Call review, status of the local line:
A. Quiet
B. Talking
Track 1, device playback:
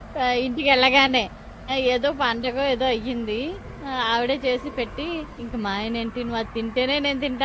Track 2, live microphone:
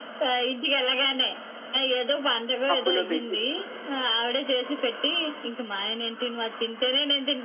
B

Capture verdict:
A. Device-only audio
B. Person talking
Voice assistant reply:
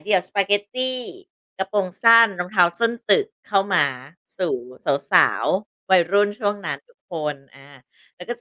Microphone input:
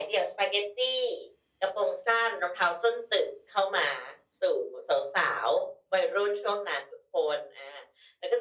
A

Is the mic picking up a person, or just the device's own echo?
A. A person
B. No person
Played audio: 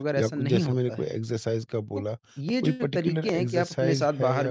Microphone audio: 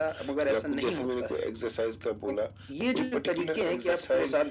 B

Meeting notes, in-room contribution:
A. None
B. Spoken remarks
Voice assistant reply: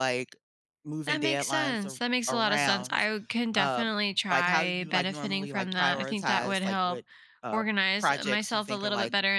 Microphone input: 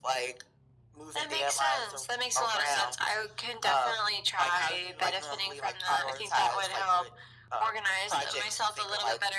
A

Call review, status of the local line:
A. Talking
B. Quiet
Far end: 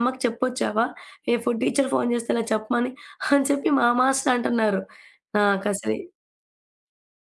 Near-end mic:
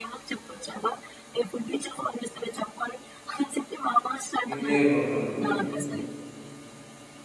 A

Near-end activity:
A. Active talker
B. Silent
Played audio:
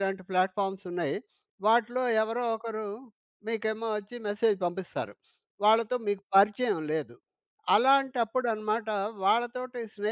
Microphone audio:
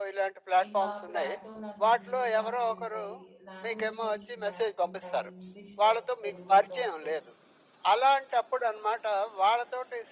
A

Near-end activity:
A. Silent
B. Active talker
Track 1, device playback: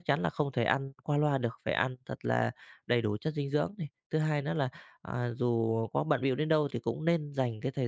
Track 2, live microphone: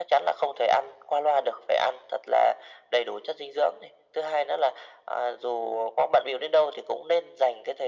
A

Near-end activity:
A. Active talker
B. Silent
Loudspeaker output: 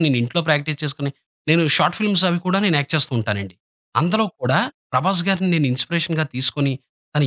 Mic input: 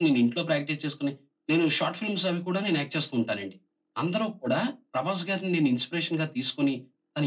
B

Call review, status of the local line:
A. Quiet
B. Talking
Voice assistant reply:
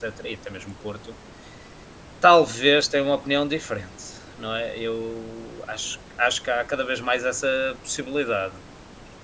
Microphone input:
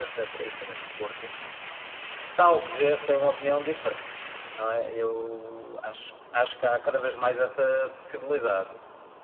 A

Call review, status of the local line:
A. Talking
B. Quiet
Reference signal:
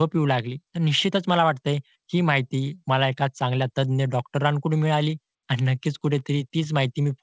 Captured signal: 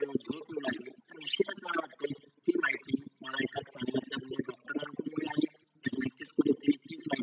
B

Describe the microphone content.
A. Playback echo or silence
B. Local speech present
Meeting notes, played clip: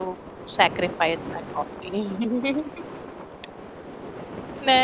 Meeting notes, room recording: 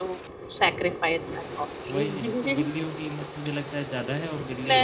B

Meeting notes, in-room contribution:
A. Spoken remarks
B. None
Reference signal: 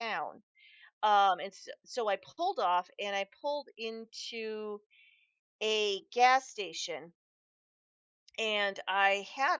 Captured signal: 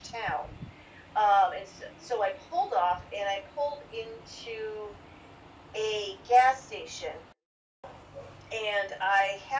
B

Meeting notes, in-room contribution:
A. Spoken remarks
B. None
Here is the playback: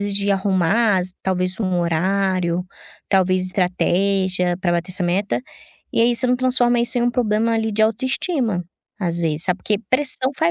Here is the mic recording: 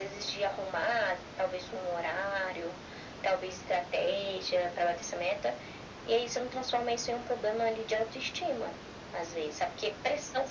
B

